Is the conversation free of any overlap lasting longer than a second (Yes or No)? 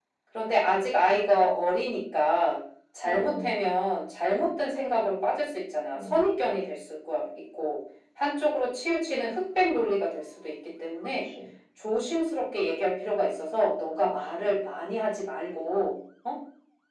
Yes